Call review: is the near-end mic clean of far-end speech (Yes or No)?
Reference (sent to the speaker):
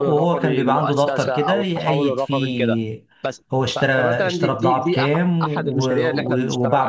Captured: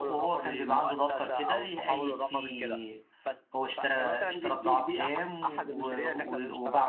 No